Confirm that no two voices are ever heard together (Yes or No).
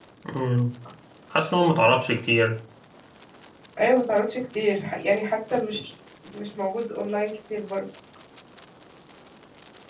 Yes